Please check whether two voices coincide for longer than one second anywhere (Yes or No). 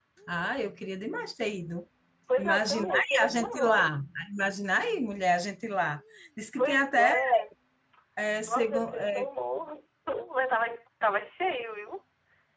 Yes